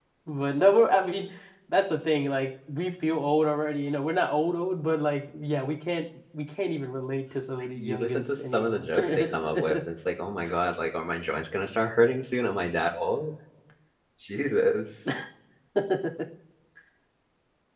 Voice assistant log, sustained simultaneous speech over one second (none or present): present